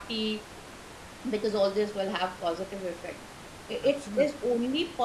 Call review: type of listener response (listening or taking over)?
listening